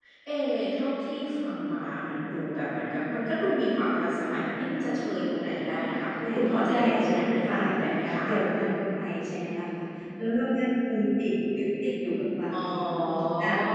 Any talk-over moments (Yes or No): Yes